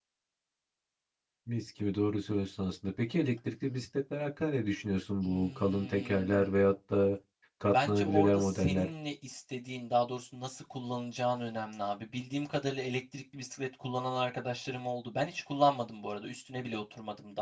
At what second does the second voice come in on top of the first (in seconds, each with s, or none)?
5.2 s